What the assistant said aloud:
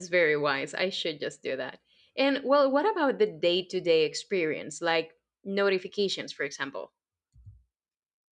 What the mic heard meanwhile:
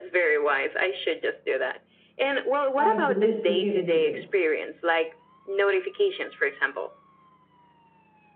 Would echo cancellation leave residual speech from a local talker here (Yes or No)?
Yes